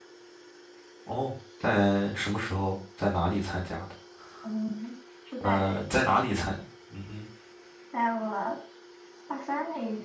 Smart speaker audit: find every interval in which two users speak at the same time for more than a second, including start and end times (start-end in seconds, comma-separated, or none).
none